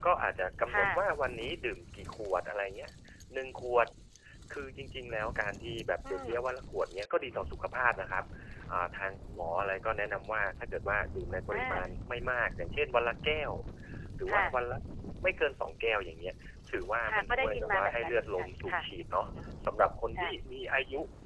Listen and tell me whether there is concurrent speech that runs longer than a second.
Yes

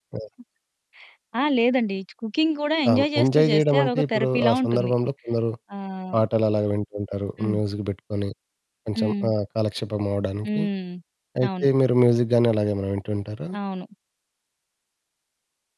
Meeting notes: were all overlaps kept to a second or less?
No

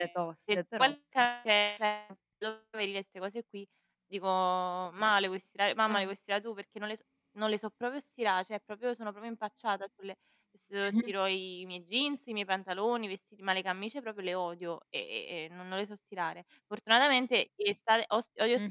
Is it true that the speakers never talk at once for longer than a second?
Yes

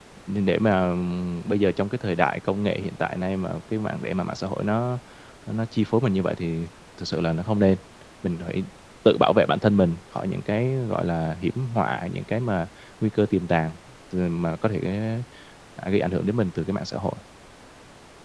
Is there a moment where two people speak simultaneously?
No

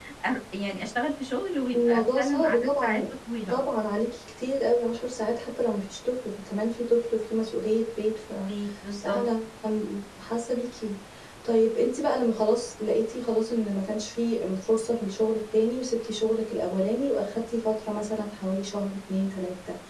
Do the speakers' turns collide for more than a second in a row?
Yes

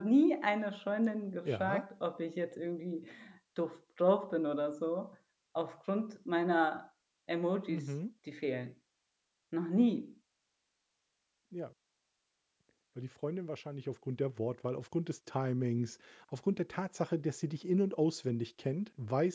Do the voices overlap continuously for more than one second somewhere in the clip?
No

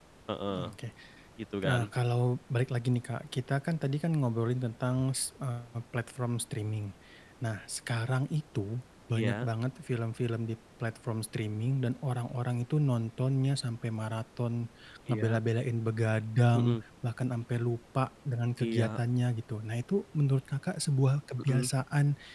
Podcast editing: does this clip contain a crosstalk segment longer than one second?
No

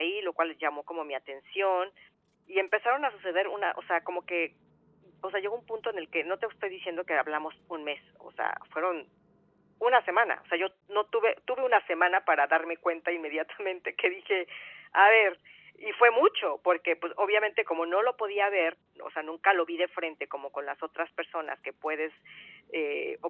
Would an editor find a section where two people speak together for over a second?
No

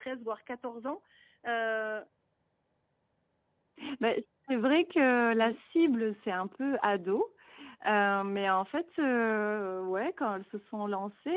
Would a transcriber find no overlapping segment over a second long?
Yes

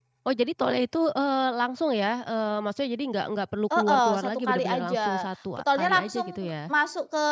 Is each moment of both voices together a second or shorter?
No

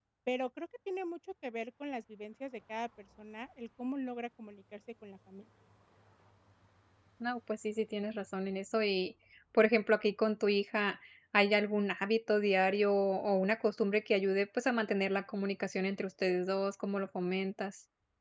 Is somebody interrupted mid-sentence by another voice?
No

